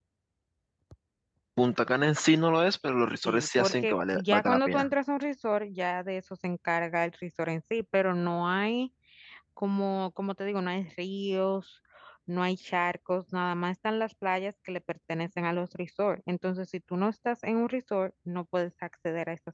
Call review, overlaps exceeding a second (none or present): present